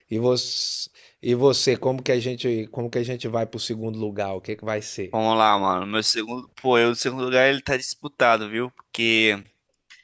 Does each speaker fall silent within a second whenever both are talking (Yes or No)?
Yes